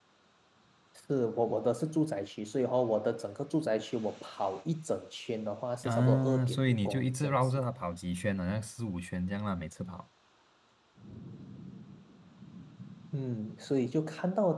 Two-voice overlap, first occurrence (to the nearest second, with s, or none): 6 s